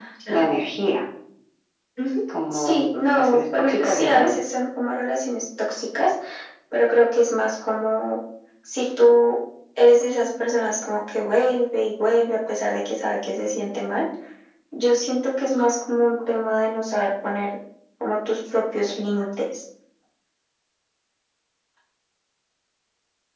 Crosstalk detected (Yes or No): Yes